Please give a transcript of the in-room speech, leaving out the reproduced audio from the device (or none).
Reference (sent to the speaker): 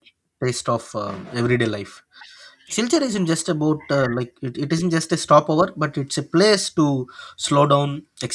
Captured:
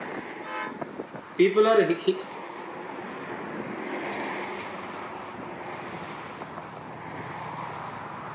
people are he- he-